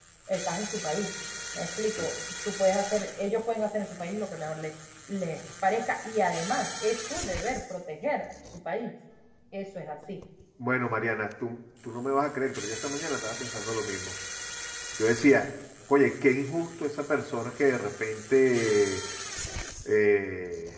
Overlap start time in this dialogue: none

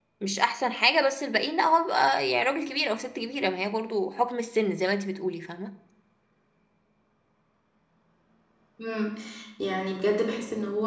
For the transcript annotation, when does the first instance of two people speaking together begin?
none

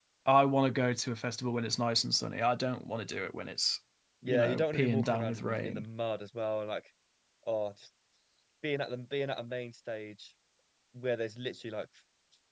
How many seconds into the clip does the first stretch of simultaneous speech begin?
4 s

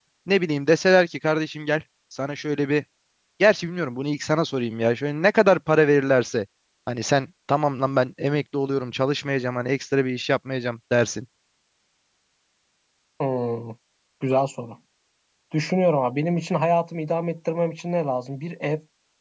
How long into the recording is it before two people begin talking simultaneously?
none

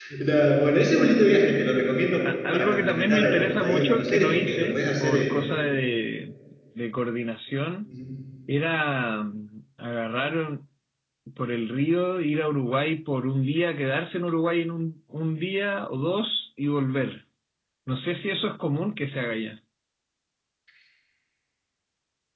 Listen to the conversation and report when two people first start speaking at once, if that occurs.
2 s

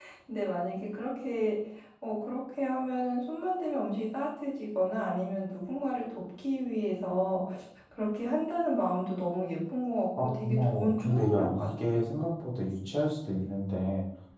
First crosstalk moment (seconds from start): 10 s

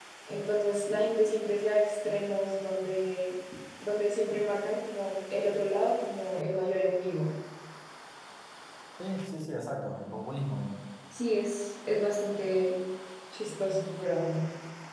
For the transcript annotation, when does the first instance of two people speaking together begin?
none

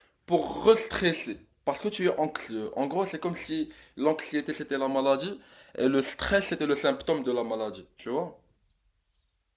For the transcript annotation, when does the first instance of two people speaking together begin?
none

